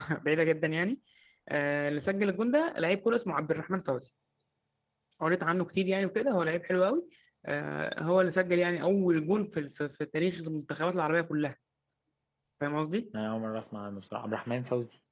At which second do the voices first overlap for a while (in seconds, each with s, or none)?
none